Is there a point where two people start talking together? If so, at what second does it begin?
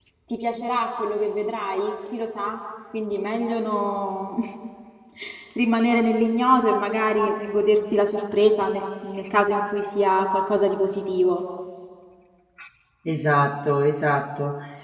none

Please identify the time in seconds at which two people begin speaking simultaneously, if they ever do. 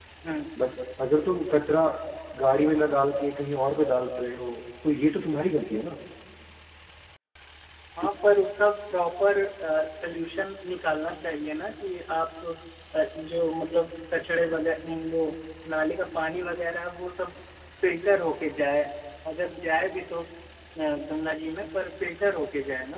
none

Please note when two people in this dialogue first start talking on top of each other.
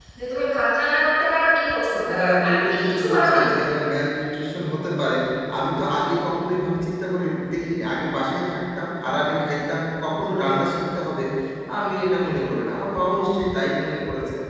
1.9 s

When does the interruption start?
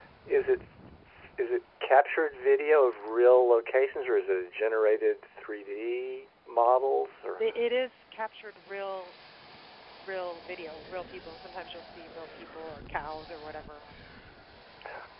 none

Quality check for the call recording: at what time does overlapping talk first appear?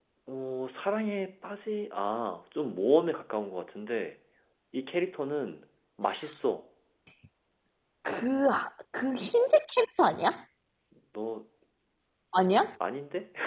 none

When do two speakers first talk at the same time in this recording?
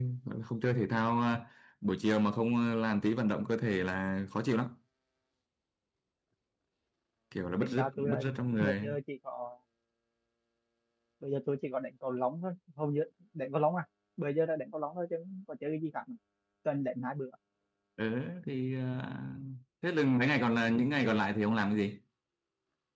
7.6 s

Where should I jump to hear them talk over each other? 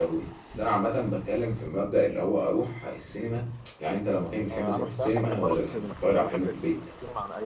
4.5 s

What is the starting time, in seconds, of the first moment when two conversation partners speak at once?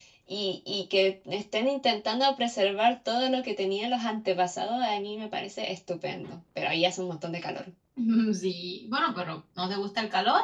none

